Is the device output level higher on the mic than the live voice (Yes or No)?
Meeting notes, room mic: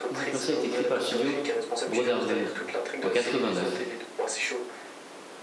No